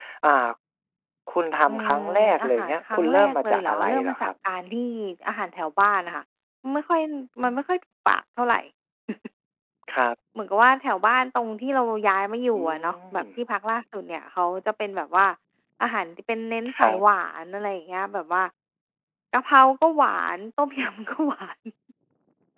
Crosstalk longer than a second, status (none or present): present